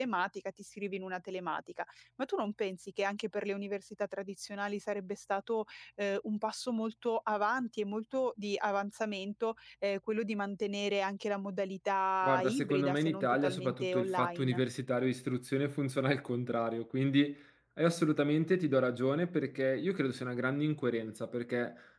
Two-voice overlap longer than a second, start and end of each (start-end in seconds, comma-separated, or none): 12.2-14.6